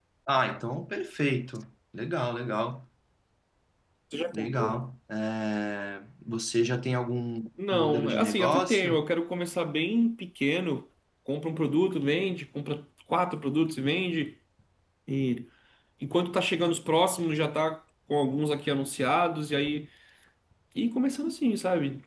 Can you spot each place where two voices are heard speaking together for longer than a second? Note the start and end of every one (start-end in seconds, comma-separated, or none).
7.7-9.0